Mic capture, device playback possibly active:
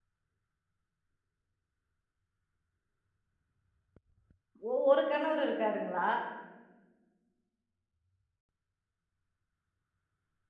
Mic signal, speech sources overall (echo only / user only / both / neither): user only